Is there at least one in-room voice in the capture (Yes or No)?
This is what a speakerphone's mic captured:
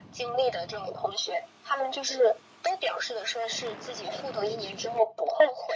No